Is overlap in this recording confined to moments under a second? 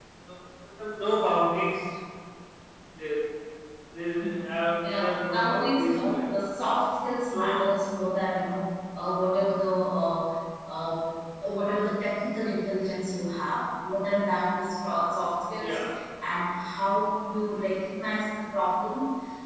No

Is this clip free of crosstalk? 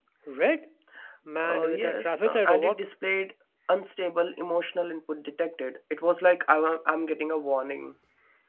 No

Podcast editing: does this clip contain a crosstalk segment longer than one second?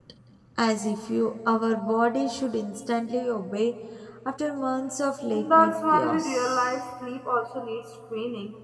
Yes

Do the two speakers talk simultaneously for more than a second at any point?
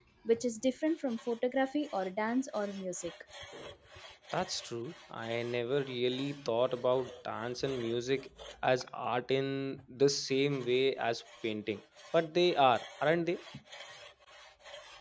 No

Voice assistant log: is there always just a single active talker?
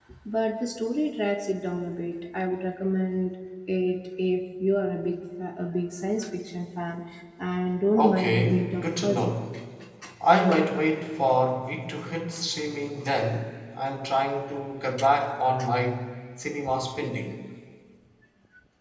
No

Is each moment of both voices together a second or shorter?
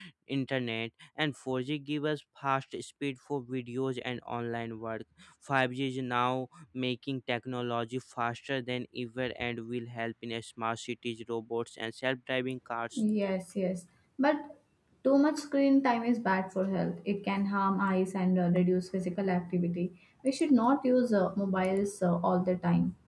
Yes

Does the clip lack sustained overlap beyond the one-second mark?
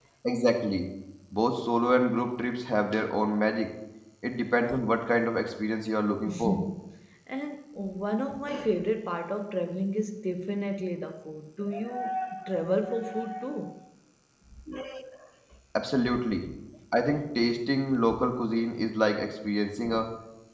Yes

